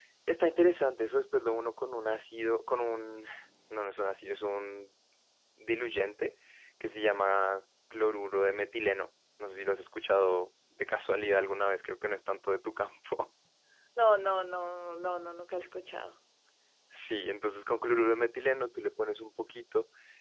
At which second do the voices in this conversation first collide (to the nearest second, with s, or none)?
none